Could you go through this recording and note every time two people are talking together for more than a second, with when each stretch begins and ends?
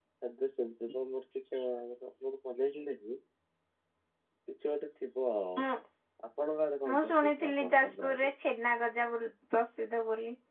6.9-8.3

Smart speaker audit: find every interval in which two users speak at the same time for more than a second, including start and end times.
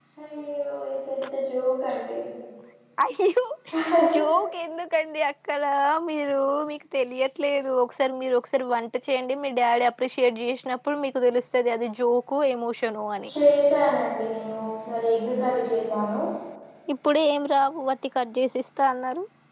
none

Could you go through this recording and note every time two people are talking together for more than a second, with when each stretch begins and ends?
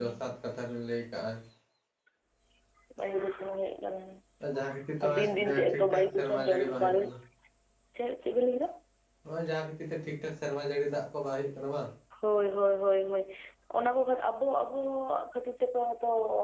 5.0-7.0

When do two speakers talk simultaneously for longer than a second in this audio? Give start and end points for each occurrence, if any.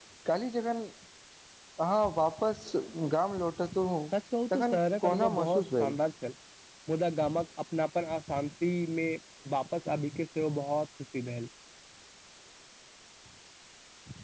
4.5-6.0

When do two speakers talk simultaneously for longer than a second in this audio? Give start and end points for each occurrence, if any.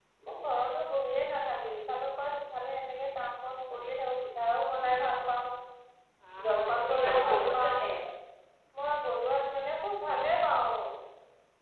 6.5-7.8

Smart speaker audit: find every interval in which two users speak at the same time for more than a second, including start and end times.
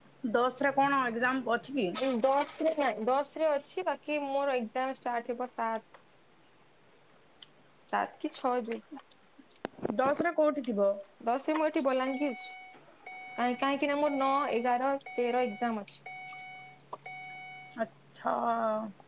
none

